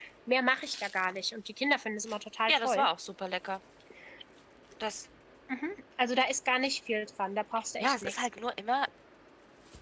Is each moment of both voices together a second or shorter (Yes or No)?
Yes